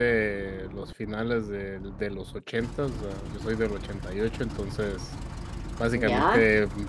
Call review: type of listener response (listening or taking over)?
listening